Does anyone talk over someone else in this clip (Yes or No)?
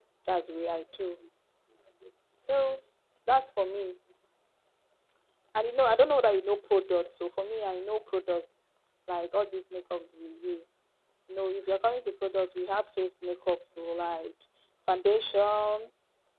No